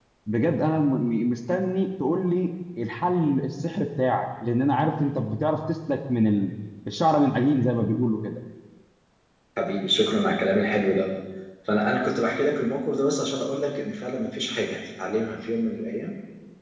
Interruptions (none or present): none